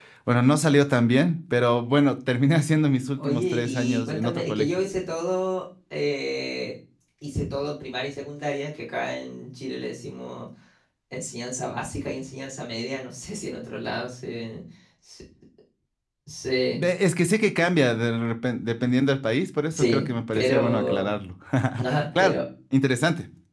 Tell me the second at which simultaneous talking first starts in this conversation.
3.2 s

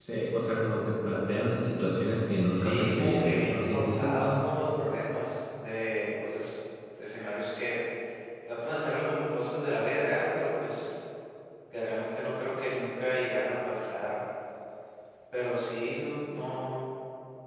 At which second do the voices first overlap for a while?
2.6 s

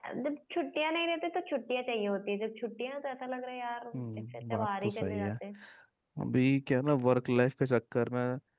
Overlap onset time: 3.9 s

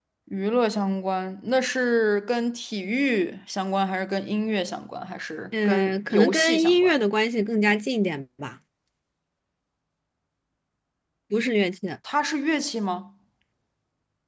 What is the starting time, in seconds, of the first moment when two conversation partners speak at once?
5.5 s

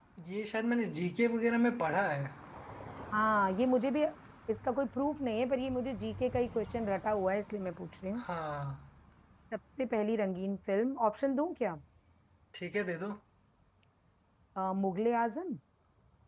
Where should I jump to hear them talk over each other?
none

